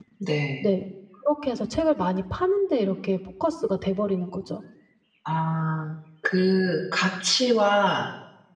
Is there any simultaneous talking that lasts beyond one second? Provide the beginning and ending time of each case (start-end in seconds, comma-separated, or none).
none